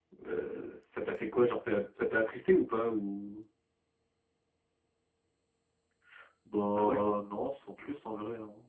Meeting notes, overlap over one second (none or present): none